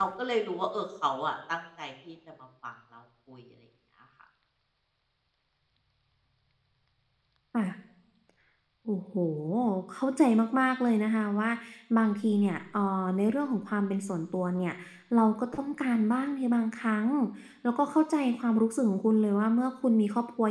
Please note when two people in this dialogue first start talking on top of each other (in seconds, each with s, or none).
none